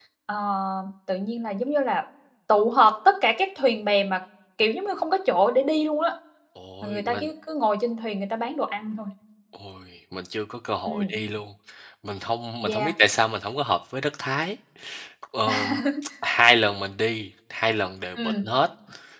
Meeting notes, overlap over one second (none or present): none